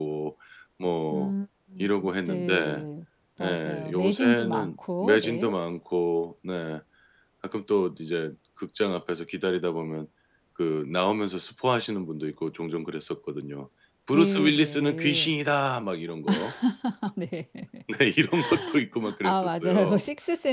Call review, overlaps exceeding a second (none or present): present